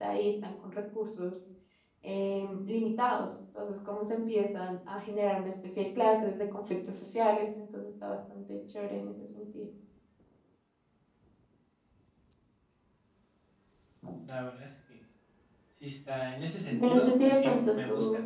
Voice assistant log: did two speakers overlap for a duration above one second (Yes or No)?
Yes